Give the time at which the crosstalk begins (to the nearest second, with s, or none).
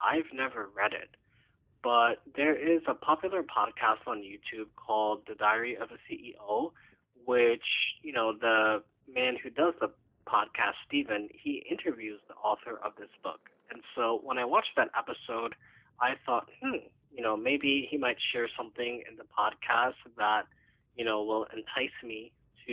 none